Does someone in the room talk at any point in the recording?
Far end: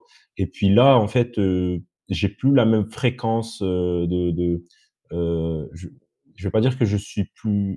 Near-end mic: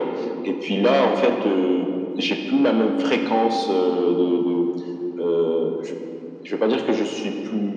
No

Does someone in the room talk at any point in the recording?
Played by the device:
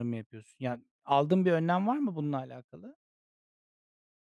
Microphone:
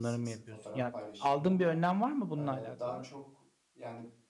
Yes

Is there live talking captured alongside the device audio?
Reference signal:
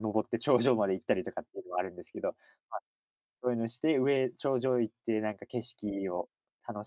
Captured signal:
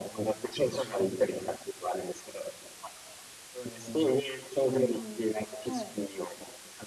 Yes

